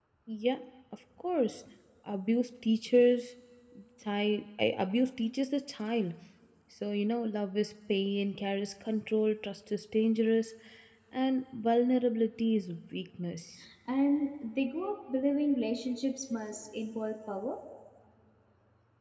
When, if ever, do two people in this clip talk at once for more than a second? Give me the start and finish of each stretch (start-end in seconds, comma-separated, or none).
none